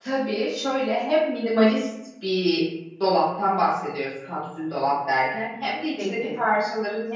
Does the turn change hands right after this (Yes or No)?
No